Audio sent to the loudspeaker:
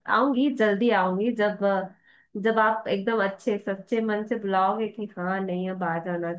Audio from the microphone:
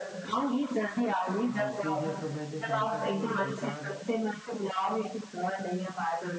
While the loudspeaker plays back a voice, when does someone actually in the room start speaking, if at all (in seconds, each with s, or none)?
1.5 s